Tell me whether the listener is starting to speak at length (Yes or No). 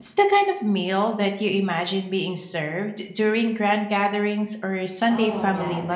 Yes